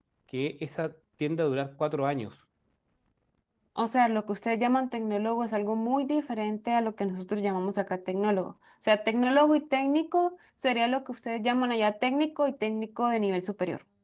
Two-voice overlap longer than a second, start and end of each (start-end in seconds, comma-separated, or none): none